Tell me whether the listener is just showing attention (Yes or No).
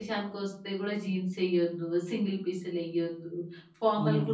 Yes